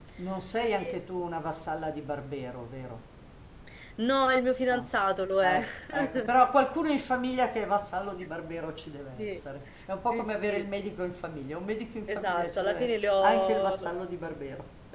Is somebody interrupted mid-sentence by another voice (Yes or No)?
Yes